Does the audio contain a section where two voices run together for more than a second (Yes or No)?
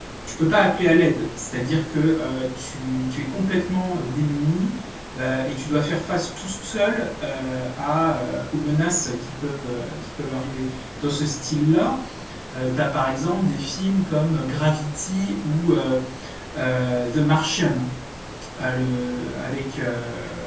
No